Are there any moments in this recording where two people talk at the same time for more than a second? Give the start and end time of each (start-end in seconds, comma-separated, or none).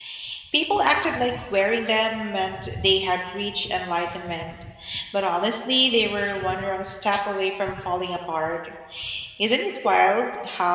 none